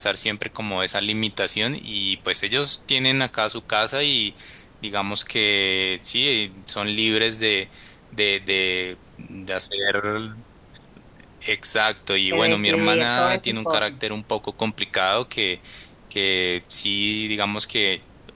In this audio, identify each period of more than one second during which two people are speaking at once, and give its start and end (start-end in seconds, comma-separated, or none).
12.3-13.9